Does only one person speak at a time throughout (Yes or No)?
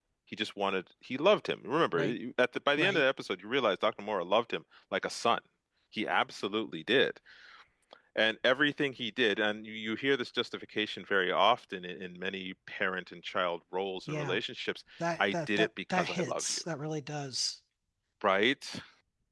No